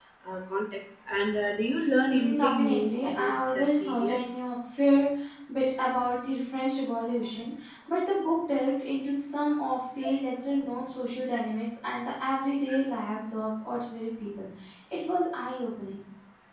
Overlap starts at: 2.1 s

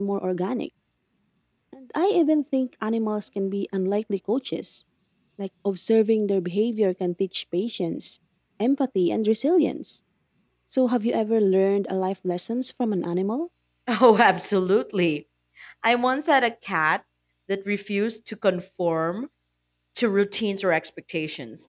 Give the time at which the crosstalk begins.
none

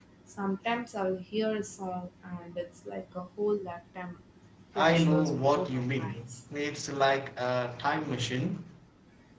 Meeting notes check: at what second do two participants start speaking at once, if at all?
4.8 s

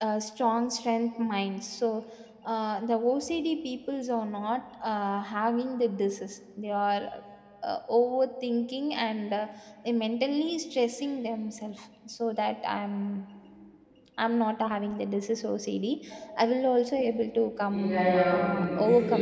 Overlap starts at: 17.7 s

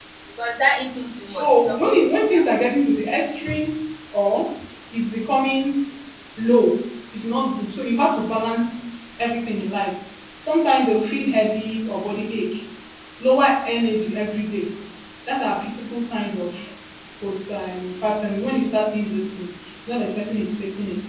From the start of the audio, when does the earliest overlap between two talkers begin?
1.3 s

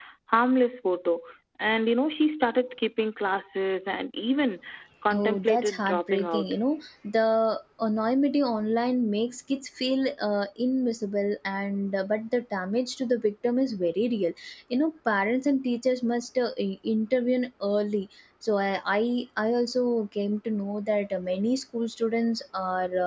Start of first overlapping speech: 5.1 s

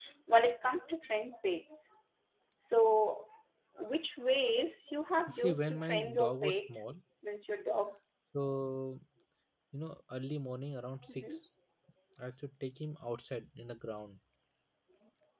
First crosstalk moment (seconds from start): 5.3 s

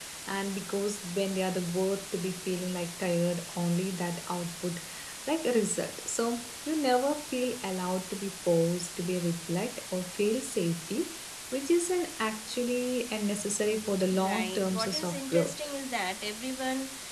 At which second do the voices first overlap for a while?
14.0 s

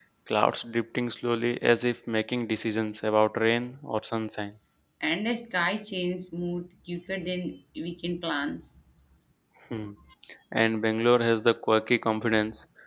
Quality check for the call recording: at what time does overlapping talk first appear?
none

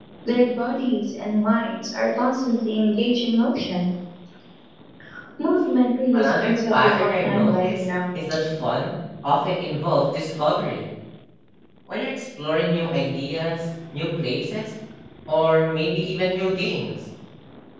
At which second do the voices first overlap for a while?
6.2 s

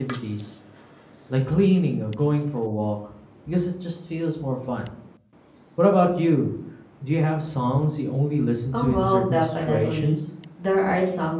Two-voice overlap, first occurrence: 8.7 s

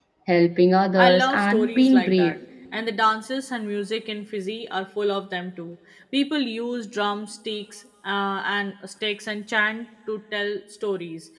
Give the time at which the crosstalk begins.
1.0 s

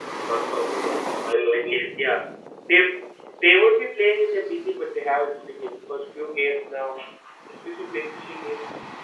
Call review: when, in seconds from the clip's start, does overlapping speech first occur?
0.7 s

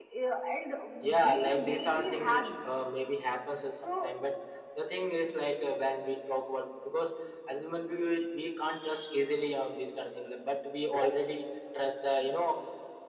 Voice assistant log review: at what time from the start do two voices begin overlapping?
1.2 s

